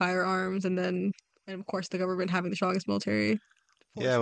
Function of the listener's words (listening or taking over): taking over